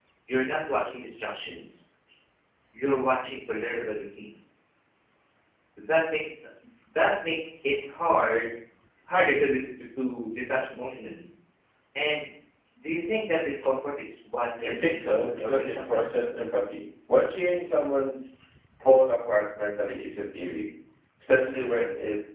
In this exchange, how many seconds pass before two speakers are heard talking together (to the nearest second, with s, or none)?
15 s